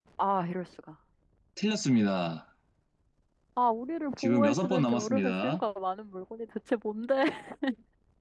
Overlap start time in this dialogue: 4 s

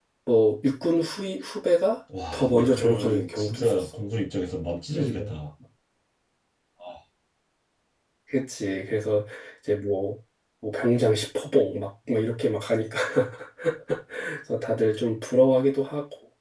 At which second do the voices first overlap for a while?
2 s

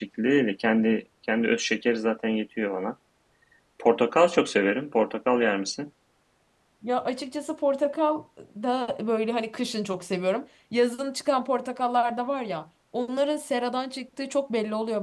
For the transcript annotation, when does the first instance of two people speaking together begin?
none

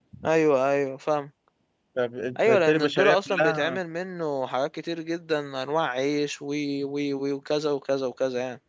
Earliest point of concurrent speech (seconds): 2 s

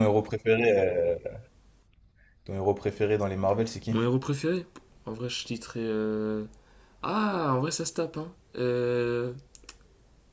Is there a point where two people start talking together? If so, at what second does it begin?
none

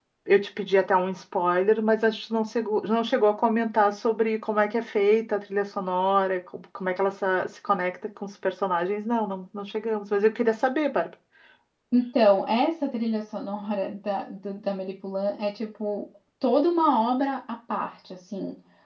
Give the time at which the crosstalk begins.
none

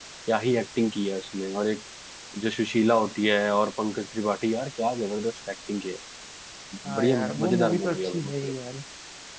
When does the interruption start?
7 s

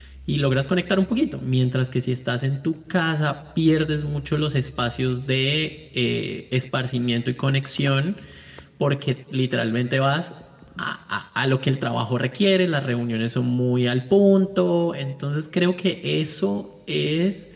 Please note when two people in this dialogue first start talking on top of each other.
none

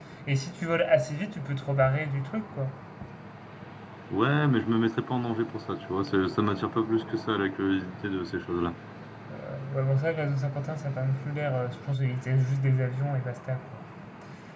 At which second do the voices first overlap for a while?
none

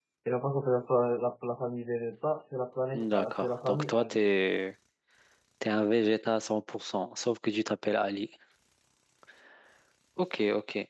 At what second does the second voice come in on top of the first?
3 s

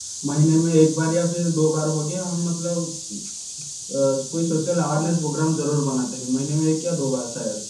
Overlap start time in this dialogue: none

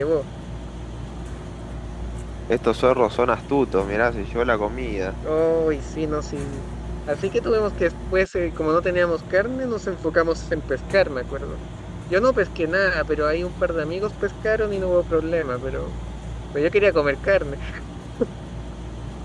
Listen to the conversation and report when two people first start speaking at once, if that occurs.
none

